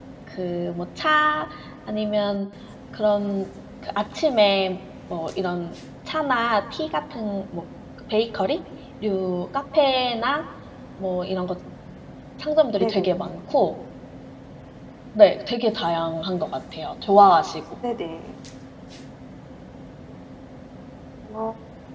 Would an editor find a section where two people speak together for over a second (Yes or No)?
No